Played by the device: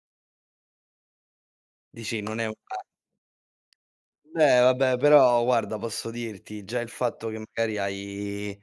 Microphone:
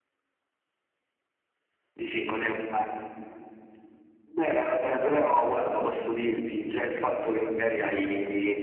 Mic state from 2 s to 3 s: echo only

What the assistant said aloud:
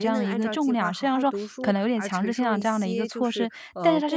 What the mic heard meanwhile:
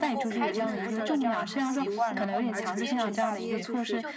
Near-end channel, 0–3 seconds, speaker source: both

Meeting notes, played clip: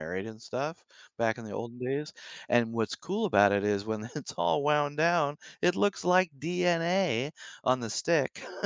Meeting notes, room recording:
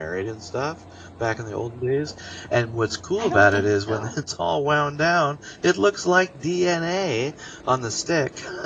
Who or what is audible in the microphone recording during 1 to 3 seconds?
echo only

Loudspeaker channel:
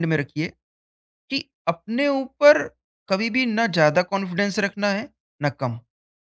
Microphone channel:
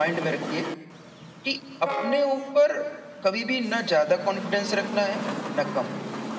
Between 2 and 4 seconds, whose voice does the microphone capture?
echo only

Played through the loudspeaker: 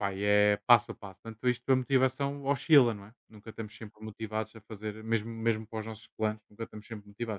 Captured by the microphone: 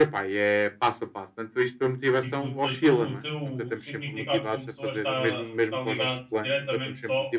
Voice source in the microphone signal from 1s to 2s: echo only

